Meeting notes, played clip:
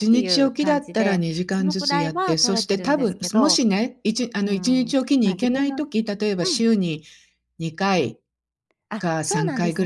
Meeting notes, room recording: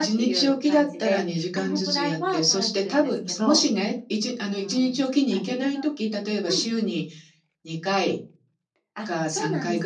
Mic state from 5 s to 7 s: echo only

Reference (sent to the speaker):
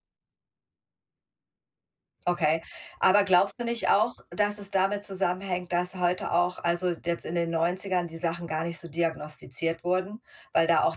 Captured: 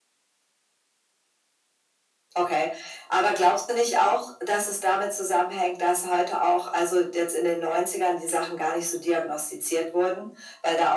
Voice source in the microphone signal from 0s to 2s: neither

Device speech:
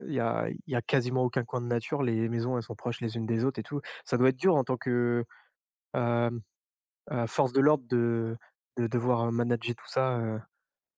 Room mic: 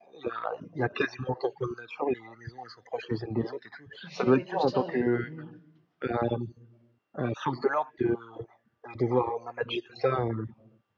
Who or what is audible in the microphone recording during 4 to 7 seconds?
both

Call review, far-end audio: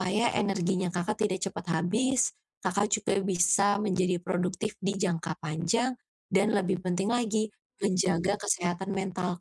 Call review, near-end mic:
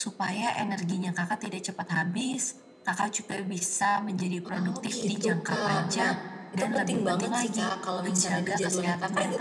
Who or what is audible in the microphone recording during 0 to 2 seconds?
echo only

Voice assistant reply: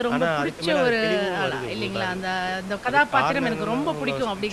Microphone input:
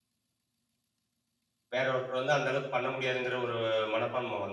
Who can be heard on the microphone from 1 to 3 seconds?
user only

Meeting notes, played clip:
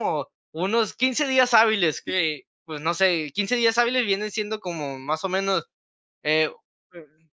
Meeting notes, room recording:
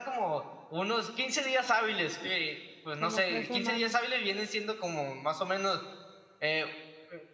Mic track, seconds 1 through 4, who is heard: both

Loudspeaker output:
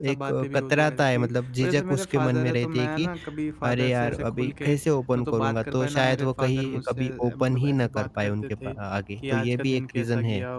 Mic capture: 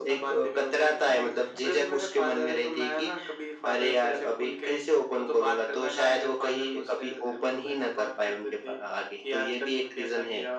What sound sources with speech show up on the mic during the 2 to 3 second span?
echo only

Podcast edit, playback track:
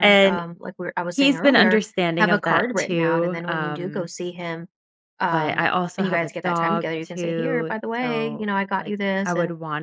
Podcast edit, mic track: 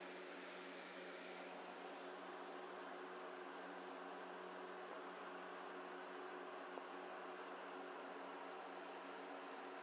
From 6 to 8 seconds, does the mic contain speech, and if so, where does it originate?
neither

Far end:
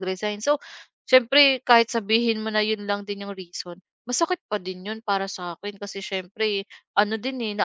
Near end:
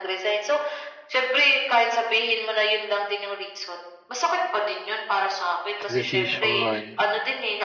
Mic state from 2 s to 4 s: echo only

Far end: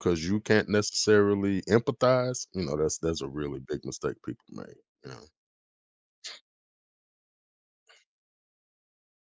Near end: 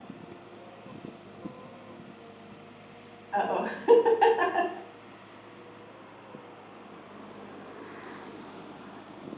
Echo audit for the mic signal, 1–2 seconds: neither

